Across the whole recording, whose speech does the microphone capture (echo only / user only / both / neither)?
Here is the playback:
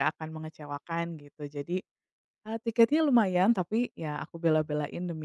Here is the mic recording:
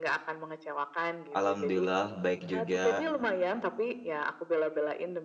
both